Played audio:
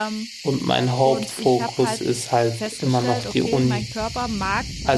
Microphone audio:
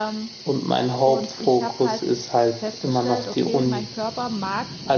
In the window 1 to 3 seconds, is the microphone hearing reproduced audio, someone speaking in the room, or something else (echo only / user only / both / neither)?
echo only